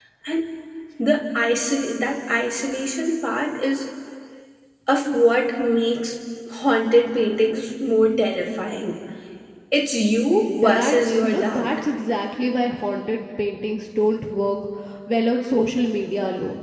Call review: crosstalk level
present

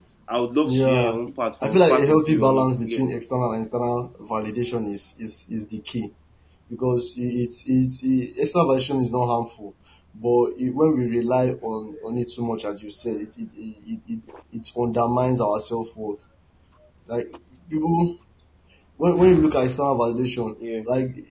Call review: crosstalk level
present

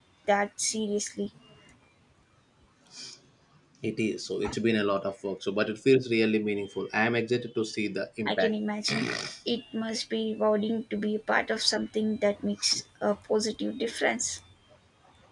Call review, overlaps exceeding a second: none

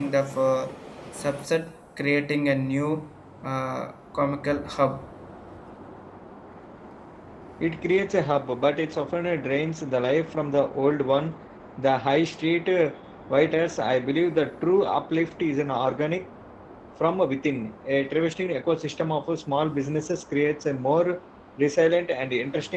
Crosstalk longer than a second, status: none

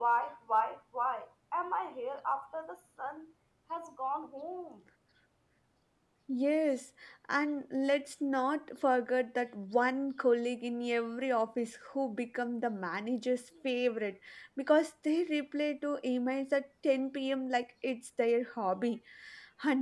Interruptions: none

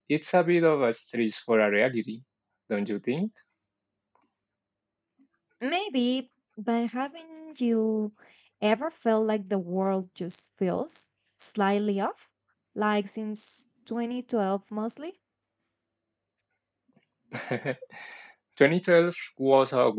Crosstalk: none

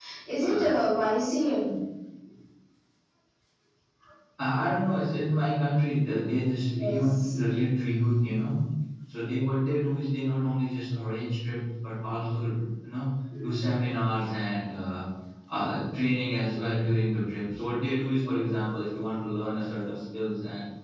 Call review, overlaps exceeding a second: none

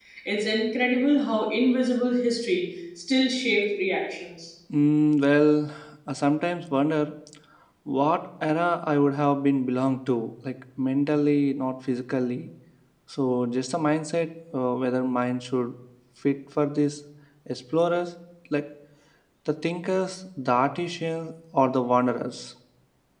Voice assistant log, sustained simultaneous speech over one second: none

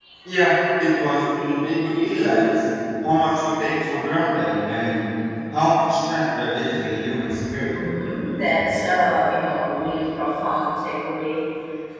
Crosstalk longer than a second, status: none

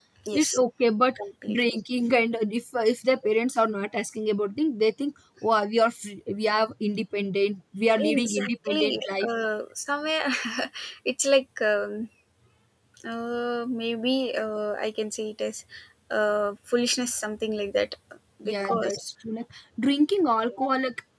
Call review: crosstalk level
present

